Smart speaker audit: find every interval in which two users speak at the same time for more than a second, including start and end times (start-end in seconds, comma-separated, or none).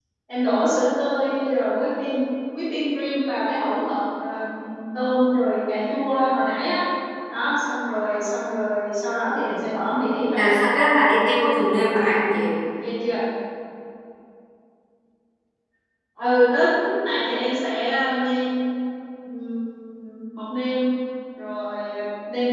none